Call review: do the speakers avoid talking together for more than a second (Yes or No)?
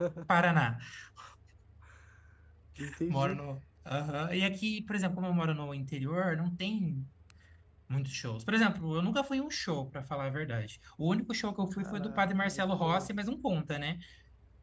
No